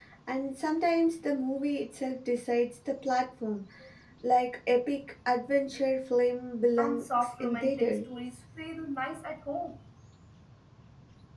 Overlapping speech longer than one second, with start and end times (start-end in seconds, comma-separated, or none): 6.8-8.0